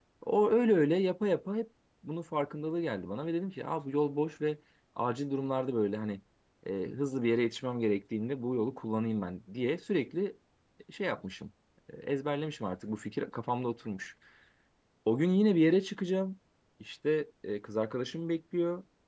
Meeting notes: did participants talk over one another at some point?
No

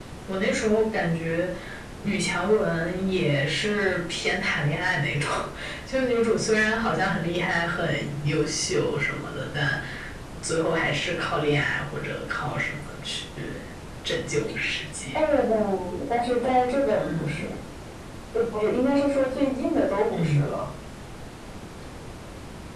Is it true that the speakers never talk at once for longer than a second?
Yes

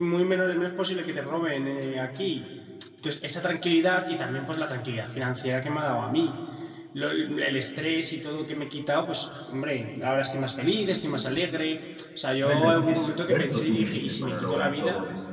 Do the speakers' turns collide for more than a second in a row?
Yes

